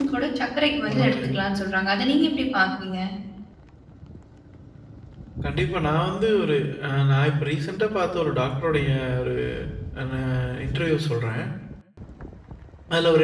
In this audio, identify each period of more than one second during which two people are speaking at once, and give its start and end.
none

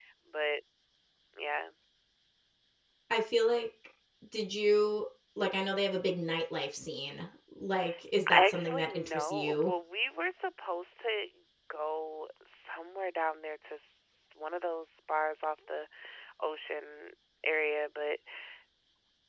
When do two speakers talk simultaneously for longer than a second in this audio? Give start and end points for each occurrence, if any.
8.3-9.7

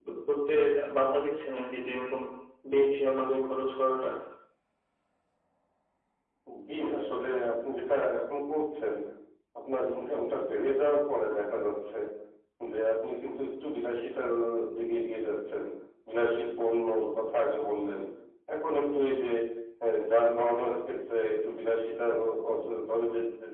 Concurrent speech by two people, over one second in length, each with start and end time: none

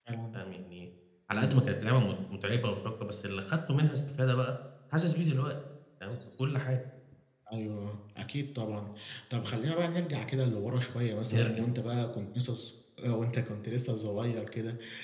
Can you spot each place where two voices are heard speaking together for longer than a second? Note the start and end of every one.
none

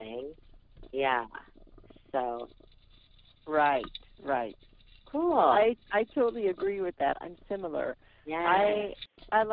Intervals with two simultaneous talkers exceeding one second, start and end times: none

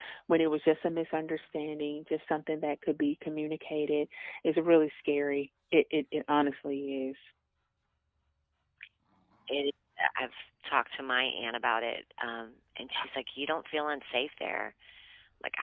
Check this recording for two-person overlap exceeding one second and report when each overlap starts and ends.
none

